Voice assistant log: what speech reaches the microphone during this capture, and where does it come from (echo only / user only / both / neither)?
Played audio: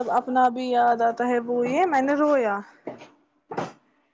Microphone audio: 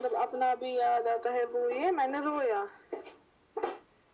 echo only